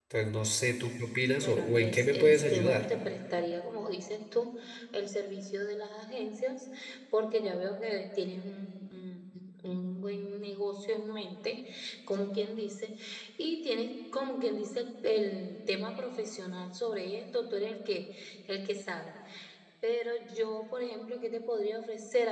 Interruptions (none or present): present